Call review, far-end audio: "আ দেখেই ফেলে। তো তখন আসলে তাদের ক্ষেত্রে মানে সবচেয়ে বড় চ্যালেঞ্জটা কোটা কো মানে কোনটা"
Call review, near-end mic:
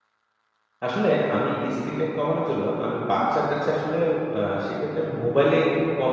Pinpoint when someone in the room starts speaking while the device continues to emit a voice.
0.8 s

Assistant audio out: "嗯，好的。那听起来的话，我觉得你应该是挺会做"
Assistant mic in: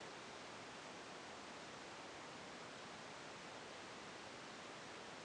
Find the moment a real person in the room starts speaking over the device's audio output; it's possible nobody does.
none

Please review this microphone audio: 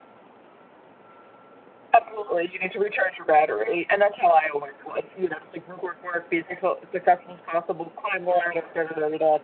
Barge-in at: none

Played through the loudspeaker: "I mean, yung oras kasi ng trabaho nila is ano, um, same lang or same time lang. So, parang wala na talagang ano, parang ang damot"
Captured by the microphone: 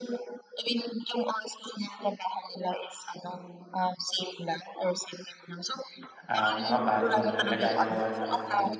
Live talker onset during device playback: 6.3 s

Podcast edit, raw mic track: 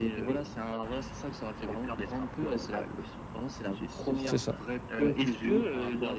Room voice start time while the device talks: 4.2 s

